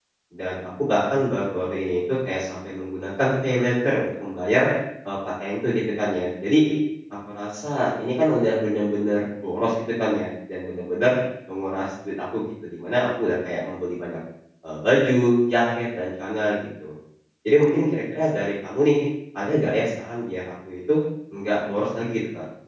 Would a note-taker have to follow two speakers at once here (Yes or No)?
No